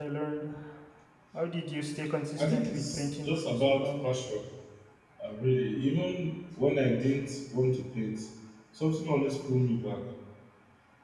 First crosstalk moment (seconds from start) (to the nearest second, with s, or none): 2 s